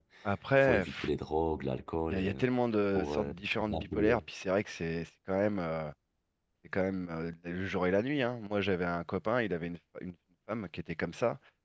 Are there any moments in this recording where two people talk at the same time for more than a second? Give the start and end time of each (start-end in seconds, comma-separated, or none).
3.0-4.2